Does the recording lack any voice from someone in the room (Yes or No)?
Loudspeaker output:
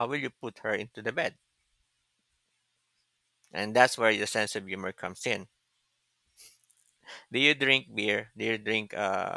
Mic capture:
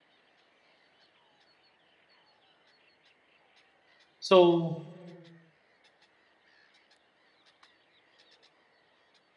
No